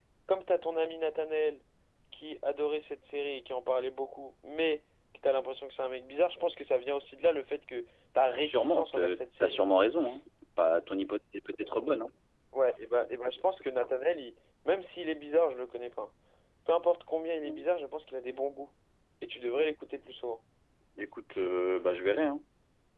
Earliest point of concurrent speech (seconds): 8.4 s

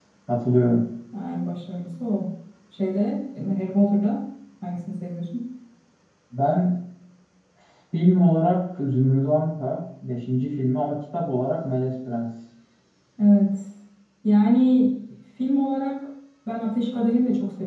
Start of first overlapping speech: none

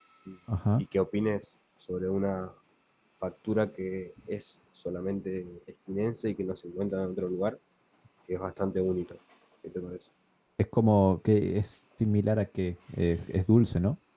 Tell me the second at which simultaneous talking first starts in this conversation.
none

